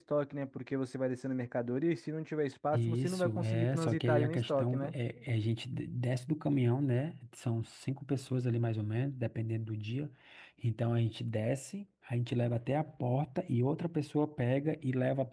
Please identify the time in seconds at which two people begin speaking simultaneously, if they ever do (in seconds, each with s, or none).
2.7 s